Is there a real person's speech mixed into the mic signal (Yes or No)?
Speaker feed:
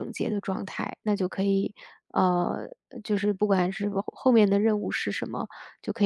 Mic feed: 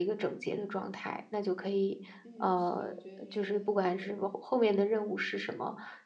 Yes